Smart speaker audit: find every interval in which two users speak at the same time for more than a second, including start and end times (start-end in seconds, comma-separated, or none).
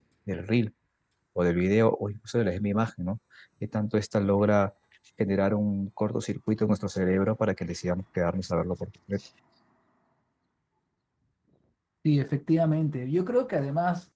none